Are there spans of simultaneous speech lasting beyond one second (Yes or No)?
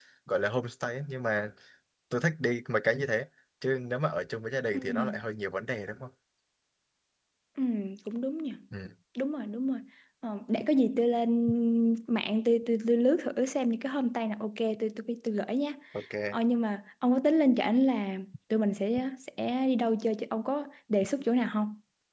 No